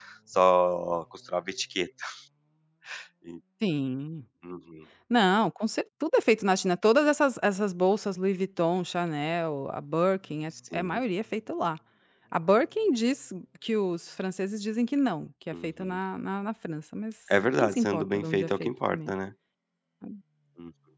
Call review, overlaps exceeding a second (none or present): present